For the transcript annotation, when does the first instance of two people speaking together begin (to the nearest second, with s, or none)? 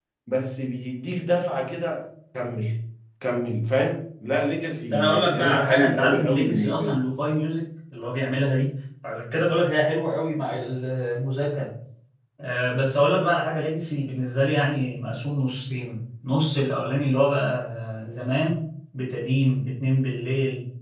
5 s